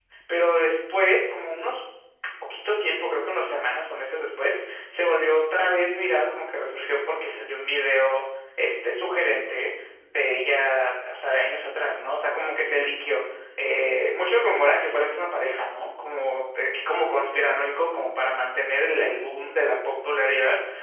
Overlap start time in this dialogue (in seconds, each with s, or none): none